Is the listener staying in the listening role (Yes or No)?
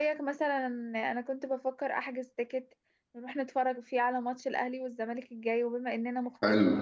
Yes